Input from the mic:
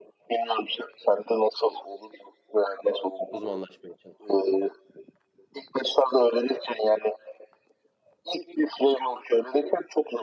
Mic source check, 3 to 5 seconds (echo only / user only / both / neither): both